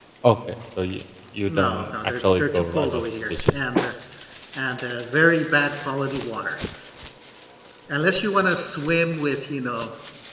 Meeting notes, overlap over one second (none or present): present